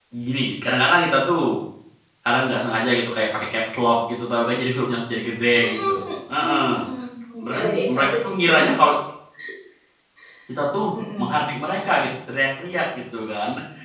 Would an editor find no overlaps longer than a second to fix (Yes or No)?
No